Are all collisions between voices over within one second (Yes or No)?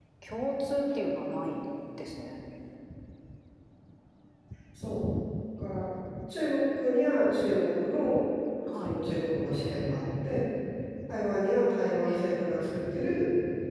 Yes